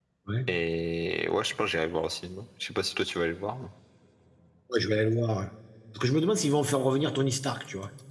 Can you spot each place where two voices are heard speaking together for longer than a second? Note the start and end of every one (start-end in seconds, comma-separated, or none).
none